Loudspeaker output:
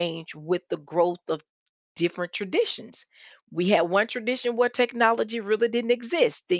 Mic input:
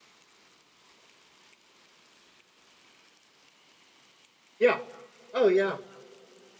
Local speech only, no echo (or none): yeah oh yeah